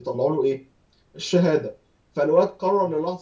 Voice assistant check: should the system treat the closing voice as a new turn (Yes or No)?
No